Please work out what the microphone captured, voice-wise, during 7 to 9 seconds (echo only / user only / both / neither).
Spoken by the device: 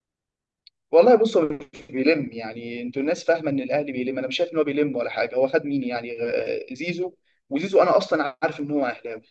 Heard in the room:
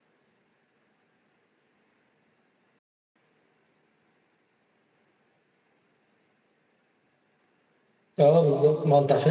user only